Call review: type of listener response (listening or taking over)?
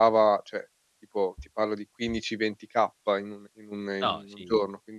listening